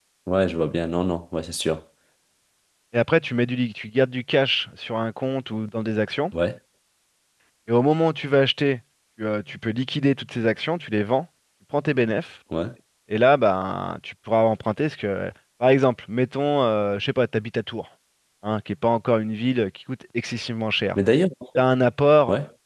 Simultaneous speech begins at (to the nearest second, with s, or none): none